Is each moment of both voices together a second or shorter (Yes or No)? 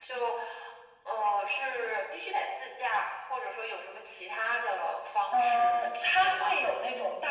No